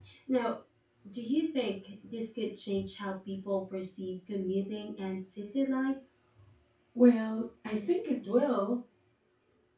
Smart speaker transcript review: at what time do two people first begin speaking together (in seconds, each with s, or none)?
none